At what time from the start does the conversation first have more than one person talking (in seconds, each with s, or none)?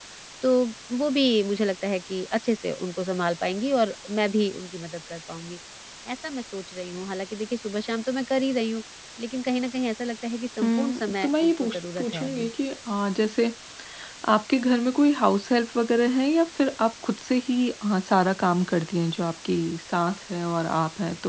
10.6 s